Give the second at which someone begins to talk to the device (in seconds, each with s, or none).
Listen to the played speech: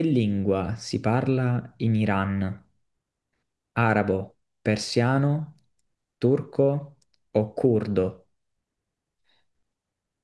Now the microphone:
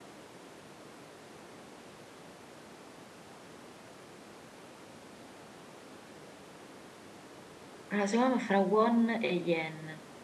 7.9 s